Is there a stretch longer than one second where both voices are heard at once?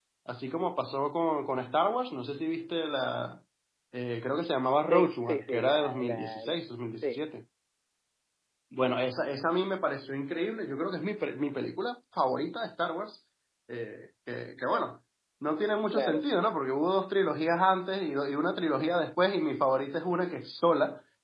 Yes, from 4.9 s

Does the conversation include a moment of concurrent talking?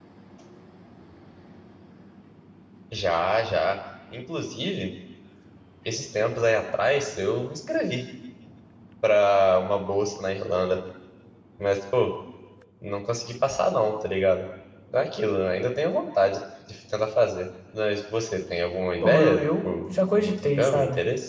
Yes, from 19.0 s

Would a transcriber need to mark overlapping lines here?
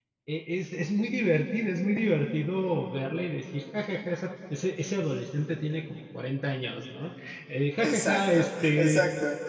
Yes, from 7.8 s

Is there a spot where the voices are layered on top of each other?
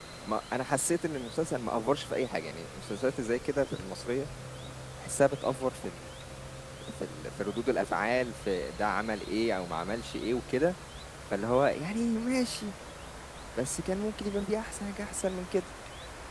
No

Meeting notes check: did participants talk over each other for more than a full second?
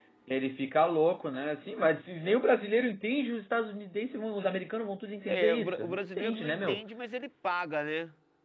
Yes, from 5.3 s

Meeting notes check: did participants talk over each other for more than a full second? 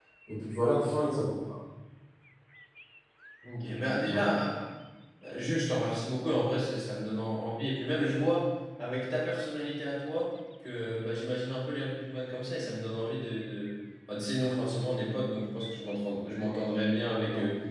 No

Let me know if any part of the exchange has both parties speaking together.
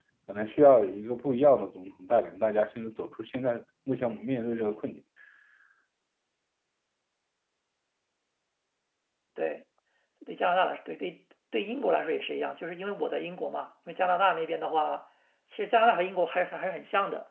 No

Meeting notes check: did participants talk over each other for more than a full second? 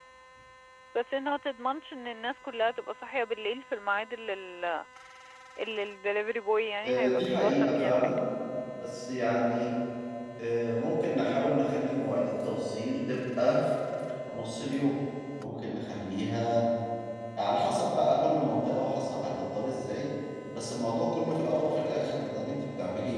Yes, from 6.8 s

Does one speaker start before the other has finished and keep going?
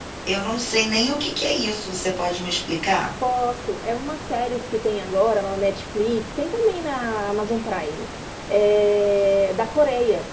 No

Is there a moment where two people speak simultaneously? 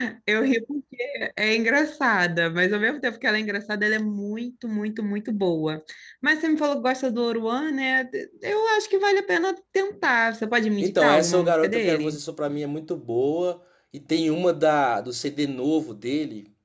Yes, from 10.8 s

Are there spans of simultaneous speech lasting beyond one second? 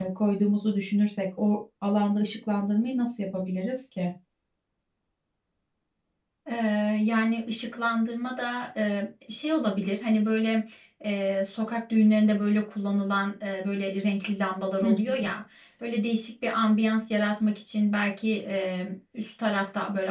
No

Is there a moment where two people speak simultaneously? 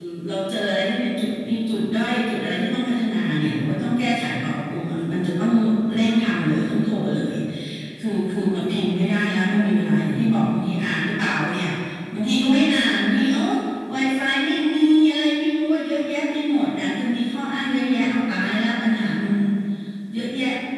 No

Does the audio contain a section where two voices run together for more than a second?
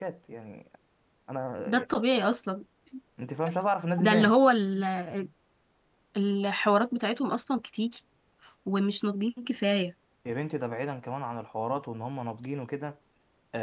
No

